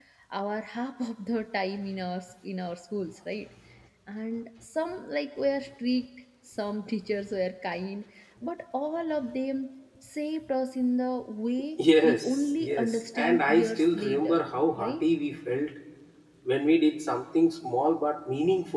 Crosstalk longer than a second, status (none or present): present